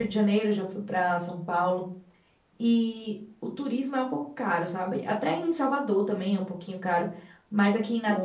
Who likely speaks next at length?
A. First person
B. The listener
B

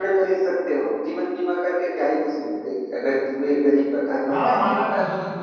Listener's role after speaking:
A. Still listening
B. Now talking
B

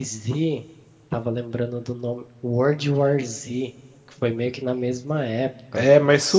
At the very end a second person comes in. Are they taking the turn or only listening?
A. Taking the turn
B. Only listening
A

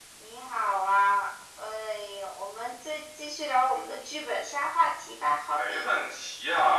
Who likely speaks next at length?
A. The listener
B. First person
A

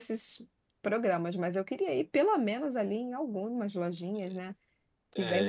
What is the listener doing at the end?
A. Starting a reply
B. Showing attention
A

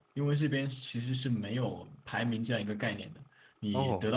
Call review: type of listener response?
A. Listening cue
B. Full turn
A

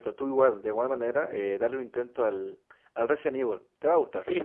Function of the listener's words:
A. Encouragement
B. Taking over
B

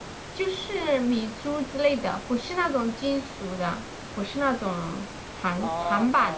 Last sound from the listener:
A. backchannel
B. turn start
B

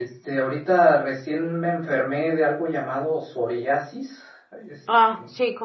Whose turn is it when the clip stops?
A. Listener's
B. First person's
A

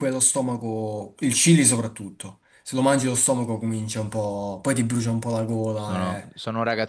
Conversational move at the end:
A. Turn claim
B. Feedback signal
A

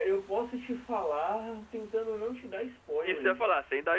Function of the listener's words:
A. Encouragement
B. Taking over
B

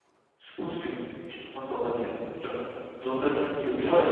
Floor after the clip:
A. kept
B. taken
B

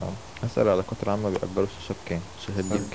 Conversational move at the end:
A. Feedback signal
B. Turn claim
B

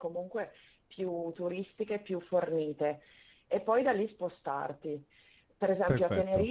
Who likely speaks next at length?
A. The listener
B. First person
B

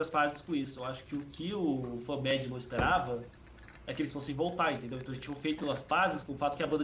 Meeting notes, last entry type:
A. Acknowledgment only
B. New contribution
A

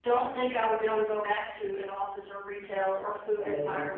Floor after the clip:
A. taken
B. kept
B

